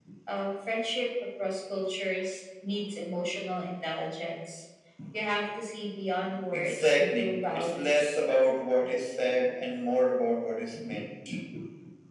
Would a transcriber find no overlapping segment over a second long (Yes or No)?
No